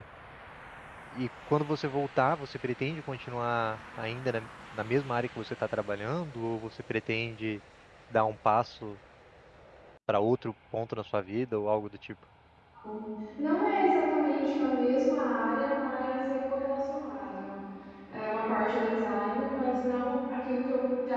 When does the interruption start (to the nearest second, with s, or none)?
none